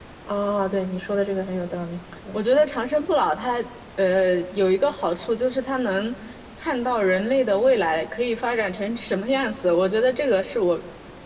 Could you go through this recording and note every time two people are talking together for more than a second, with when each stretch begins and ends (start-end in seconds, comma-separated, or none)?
none